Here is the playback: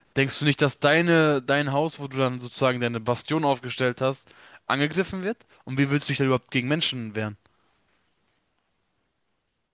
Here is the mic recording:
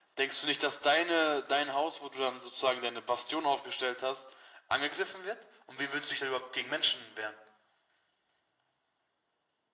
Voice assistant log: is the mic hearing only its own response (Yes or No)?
Yes